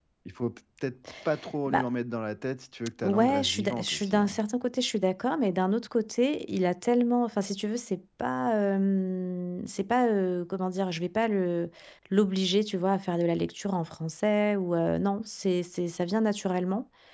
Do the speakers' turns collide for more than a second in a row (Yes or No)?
Yes